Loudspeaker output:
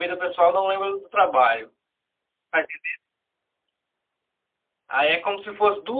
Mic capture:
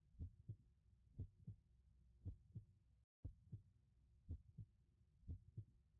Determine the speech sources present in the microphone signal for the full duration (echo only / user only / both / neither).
neither